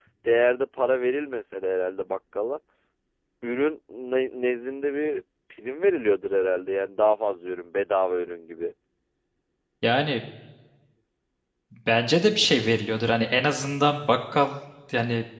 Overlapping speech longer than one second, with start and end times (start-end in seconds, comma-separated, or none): none